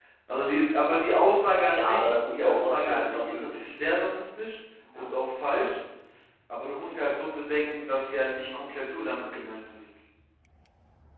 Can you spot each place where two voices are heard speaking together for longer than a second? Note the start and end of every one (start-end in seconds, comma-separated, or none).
1.6-3.8